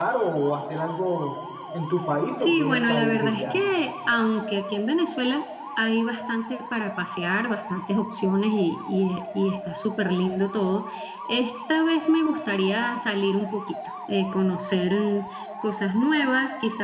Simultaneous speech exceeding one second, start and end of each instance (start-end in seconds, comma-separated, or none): 2.4-3.7